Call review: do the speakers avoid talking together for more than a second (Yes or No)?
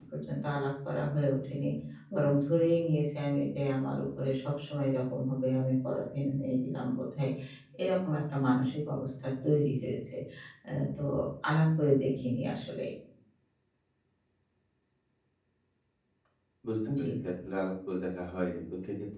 Yes